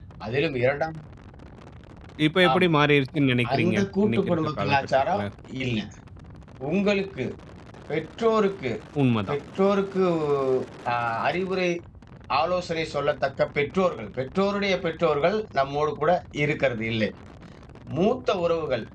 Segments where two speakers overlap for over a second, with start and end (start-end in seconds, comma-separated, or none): 3.5-5.2